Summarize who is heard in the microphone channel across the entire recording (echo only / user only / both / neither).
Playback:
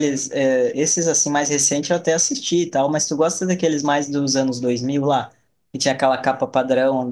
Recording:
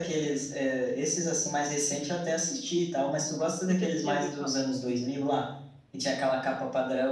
both